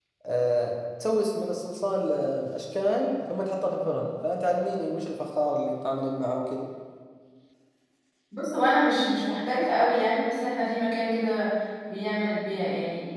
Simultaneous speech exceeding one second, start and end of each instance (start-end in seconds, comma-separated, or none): none